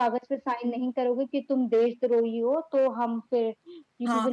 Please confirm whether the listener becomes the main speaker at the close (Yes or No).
Yes